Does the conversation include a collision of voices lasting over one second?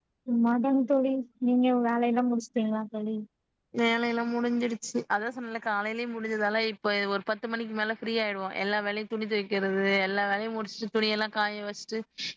No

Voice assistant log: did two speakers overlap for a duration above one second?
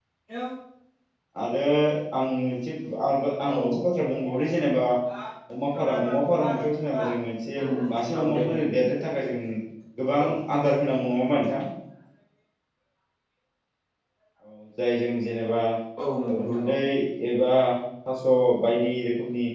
Yes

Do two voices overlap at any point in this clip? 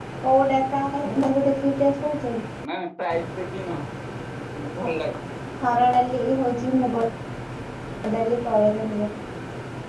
No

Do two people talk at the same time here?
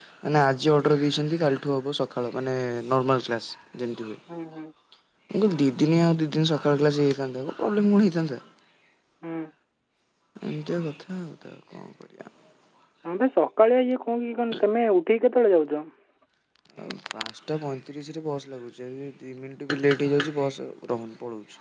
No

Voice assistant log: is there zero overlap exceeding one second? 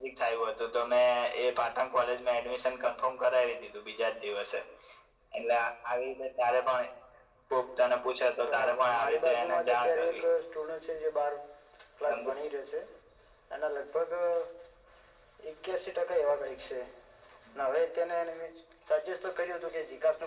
No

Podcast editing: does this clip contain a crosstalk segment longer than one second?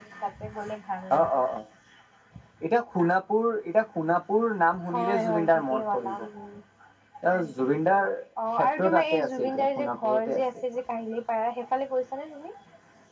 Yes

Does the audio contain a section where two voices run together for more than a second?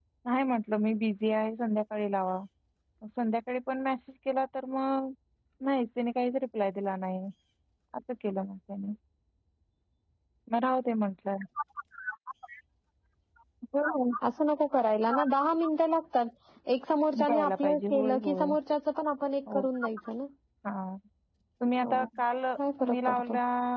Yes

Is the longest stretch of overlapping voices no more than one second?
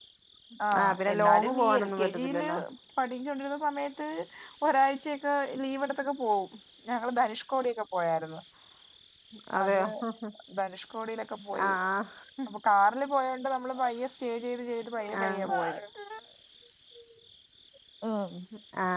No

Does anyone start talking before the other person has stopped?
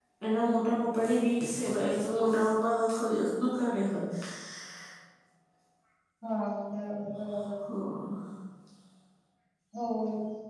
No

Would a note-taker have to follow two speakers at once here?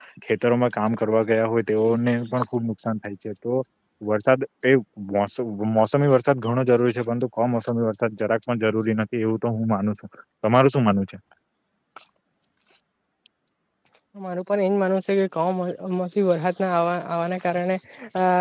No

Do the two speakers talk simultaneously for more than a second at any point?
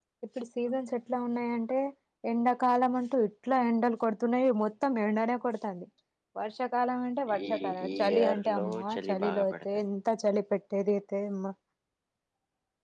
Yes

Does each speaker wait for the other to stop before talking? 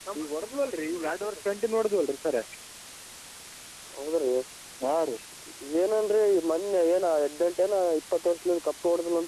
Yes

